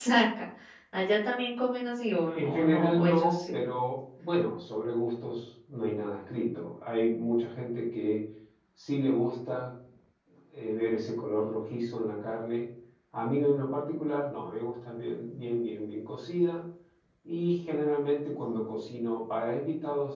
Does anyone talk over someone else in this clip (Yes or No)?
Yes